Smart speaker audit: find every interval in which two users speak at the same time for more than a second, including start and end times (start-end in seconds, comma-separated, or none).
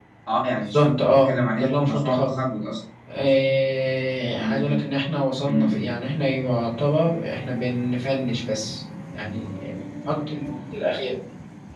0.6-2.3